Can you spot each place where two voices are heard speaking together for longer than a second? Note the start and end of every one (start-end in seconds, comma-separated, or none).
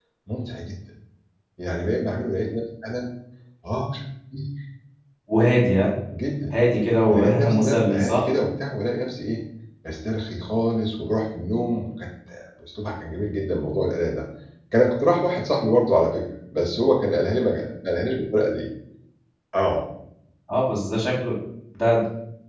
7.1-8.3